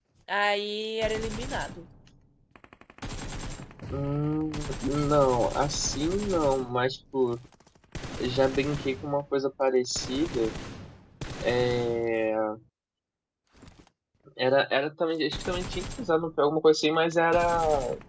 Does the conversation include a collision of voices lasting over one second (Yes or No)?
No